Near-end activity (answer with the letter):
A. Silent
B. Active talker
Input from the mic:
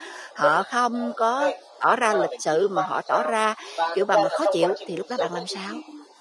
B